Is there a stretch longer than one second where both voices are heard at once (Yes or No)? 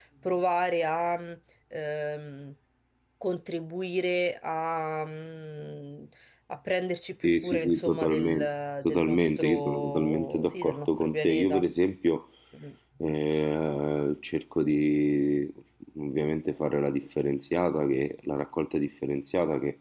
Yes